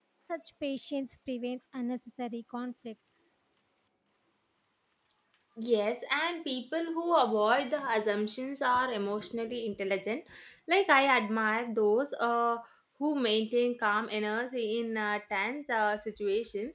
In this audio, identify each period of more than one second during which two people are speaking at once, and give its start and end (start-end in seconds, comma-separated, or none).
none